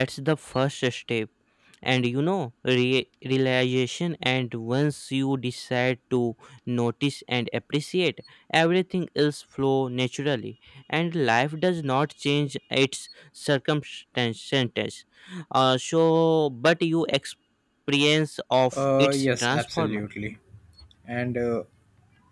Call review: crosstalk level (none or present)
present